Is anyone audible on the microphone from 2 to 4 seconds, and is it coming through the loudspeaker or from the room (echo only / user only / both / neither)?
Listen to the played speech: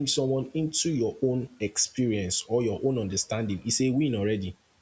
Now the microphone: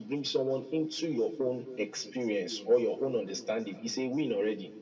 echo only